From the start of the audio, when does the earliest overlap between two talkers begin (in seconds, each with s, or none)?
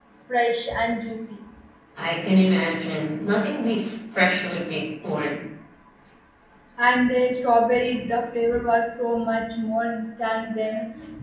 none